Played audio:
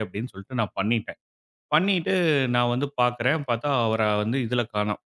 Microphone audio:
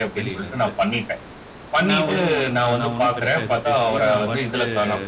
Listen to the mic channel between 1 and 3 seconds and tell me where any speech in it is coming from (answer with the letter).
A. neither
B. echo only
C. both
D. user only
C